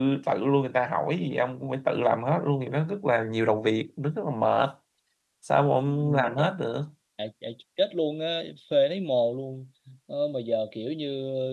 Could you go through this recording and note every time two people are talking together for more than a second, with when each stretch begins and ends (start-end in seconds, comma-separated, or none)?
none